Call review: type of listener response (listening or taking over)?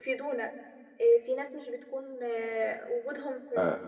taking over